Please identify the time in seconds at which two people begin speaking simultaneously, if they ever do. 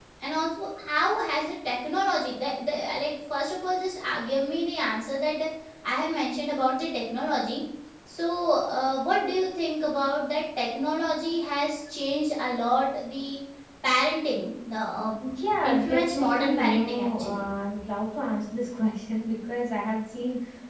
15.6 s

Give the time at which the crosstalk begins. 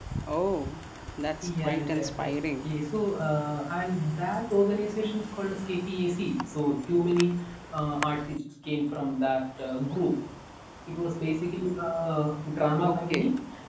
1.4 s

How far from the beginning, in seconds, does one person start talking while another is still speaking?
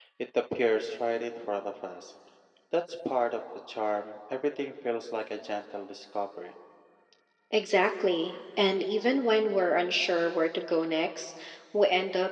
none

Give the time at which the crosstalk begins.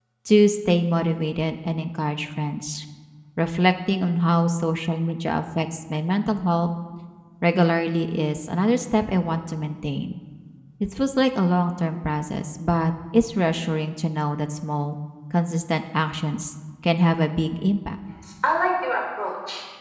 none

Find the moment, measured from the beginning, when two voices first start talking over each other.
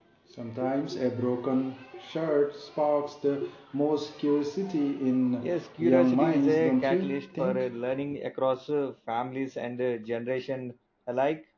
5.4 s

